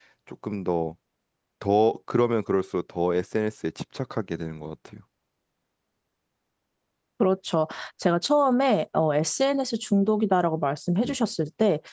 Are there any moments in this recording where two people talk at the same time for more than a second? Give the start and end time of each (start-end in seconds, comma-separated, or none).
none